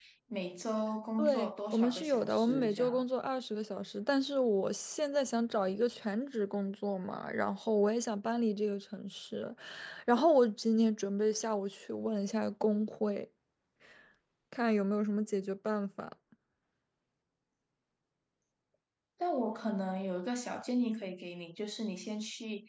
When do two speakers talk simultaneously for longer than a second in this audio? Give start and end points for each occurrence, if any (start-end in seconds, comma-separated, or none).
1.2-2.9